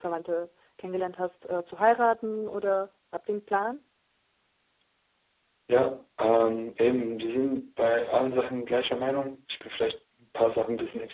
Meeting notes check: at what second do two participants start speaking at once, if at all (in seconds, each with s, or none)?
none